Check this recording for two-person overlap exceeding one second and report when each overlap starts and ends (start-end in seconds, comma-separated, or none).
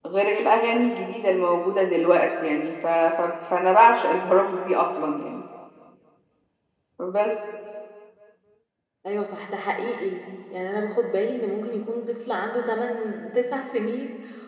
none